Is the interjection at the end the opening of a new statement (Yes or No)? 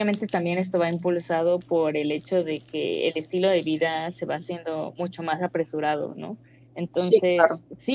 No